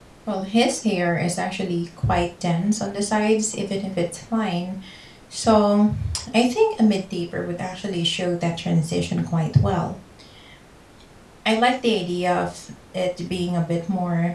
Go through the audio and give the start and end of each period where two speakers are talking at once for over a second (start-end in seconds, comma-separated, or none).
none